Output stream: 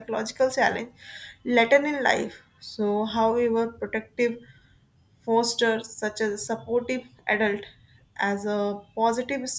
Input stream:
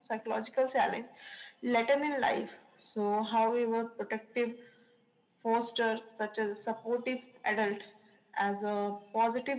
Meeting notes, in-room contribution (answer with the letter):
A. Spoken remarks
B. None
B